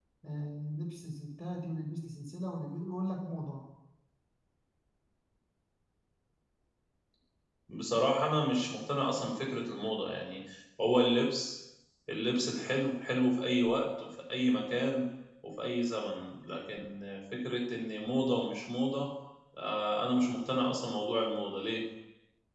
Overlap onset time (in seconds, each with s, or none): none